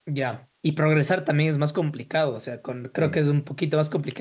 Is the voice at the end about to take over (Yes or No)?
No